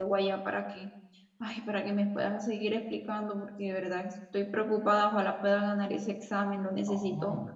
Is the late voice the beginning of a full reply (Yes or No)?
Yes